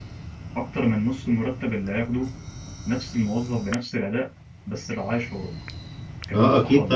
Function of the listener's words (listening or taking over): taking over